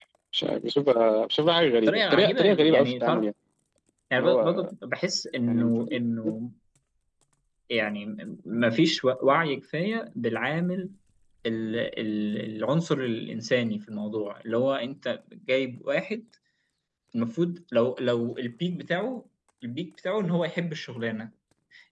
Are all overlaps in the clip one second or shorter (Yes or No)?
No